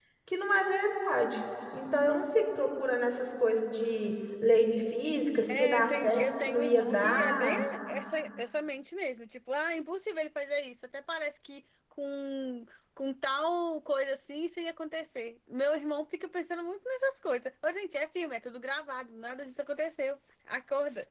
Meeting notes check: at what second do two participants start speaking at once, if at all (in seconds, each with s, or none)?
5.5 s